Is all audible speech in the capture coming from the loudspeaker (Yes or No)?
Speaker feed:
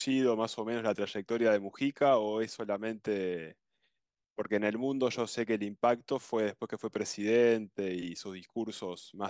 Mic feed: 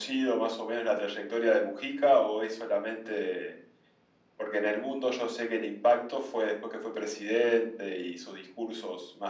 Yes